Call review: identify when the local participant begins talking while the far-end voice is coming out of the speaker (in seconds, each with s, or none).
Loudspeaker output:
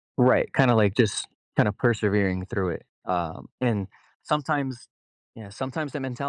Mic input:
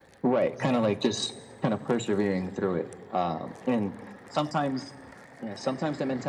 0.5 s